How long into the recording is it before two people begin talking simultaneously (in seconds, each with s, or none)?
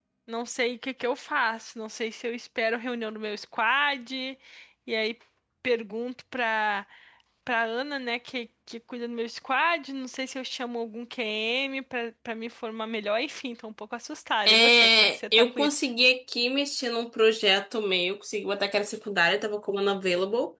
14.5 s